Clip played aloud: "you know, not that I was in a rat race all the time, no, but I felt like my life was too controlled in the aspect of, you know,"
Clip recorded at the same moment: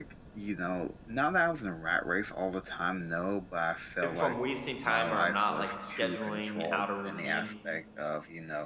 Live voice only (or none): if I'm wasting time or I'm not, like, scheduling out a routine,